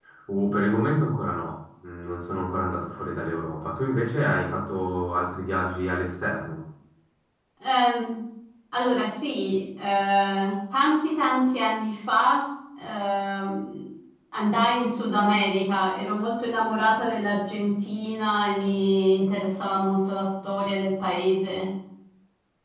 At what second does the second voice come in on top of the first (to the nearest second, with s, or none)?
none